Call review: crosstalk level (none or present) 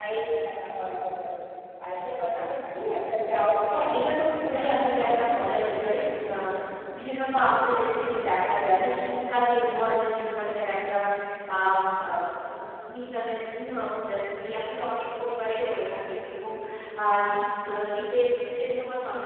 present